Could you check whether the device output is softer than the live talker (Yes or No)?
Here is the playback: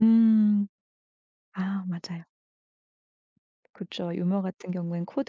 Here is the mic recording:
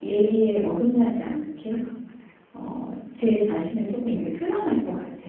Yes